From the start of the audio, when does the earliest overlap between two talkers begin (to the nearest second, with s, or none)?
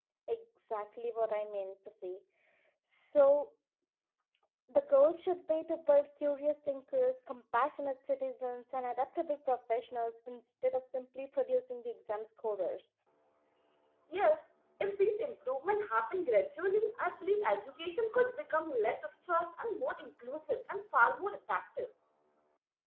none